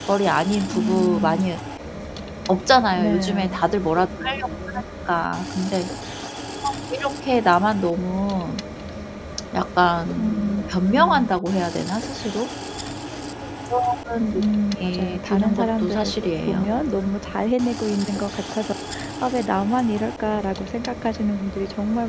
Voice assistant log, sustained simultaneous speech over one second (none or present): present